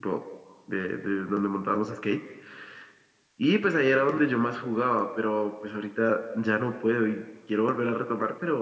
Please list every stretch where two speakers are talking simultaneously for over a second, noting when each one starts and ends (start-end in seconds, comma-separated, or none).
none